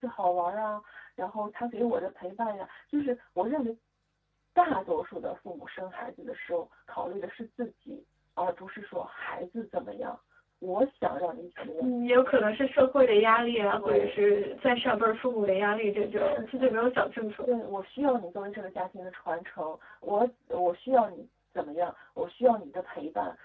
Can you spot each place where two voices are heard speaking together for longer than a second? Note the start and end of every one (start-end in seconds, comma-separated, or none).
none